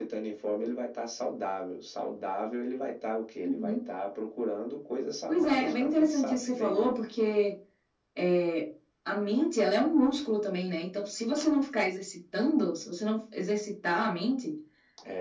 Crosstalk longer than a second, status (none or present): present